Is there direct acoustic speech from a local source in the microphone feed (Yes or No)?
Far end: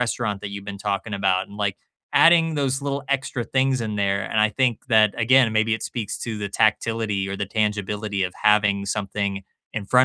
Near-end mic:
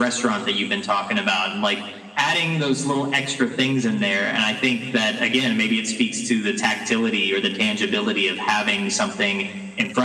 No